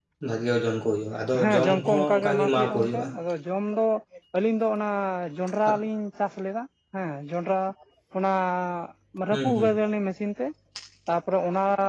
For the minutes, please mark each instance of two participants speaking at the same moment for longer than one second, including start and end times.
1.4-3.1

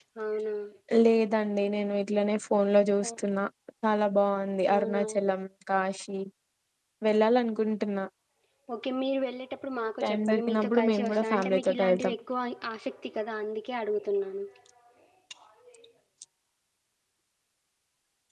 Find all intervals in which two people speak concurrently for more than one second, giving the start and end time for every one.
10.0-12.1

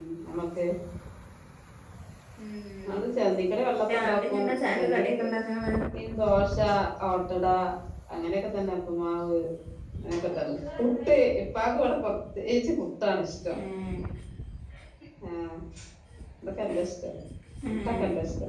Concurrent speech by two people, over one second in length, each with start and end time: 3.9-5.1

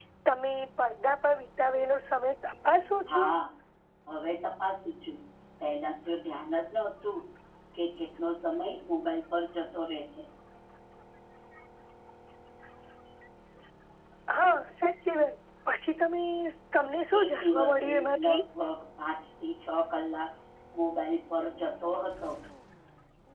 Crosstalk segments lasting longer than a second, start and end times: 17.2-18.4

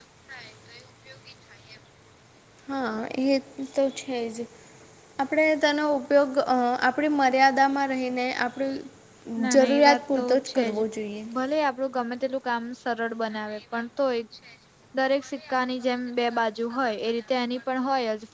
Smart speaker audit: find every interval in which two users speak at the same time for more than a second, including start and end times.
9.5-10.8

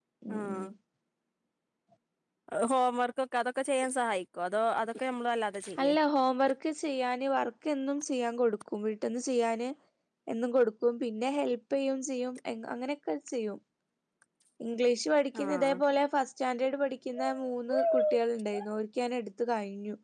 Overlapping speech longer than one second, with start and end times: none

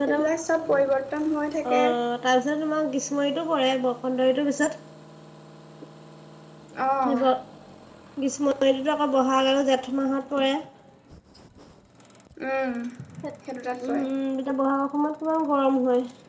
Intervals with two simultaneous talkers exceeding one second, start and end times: none

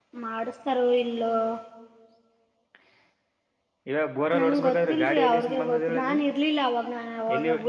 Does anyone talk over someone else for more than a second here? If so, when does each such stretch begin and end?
4.4-6.2

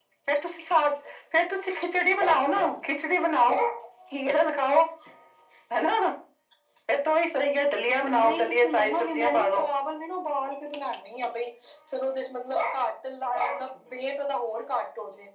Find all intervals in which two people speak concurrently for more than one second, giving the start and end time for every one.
8.0-9.6

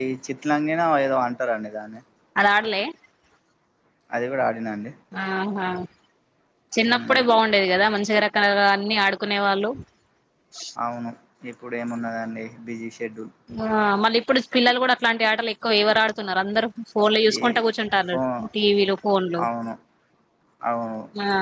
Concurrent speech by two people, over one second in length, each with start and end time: none

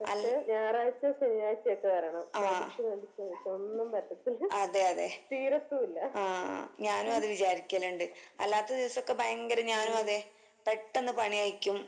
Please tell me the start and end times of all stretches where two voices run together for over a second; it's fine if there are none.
none

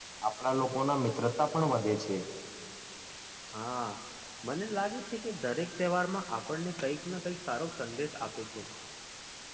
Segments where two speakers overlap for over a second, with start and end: none

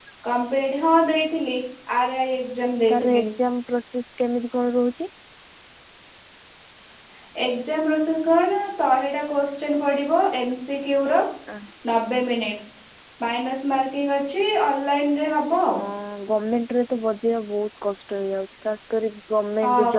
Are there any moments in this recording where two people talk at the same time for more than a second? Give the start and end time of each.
none

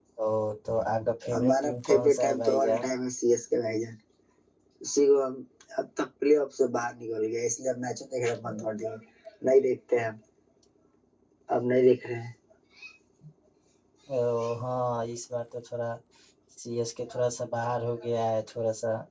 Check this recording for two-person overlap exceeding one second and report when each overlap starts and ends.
1.3-2.8

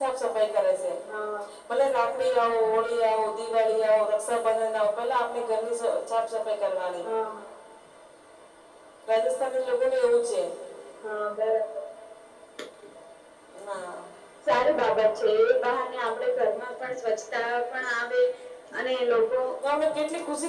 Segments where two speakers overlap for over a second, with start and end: none

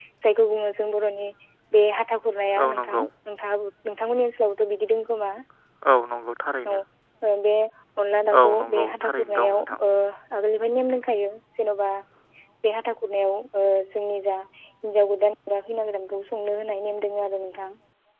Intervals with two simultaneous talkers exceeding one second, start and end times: 8.3-9.8

